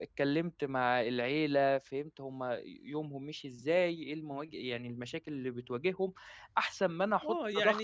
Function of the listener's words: taking over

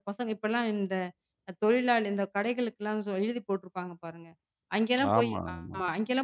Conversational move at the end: listening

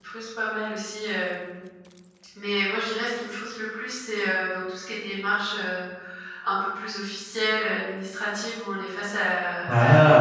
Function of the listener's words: listening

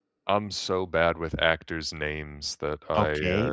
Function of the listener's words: taking over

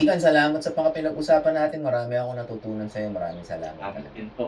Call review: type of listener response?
taking over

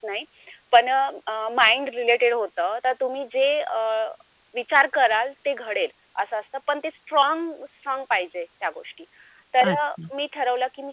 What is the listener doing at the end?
listening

